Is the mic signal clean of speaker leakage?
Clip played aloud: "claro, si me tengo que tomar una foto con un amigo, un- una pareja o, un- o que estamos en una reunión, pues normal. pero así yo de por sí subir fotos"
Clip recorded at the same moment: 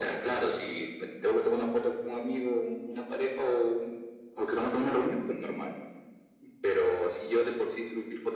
No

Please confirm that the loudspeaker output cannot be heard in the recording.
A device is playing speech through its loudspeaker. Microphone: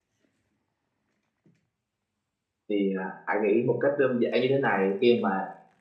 Yes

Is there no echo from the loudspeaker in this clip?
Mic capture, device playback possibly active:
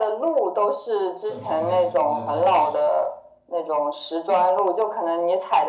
No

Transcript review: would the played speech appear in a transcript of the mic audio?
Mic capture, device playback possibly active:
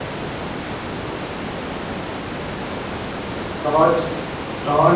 No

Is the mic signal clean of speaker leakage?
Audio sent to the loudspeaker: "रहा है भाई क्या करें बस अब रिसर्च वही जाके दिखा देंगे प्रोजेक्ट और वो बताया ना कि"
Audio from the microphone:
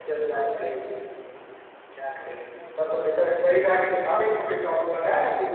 No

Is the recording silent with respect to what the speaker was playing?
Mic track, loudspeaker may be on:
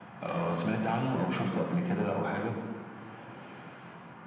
No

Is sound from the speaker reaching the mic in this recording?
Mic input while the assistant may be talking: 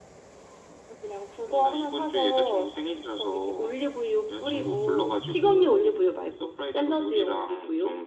Yes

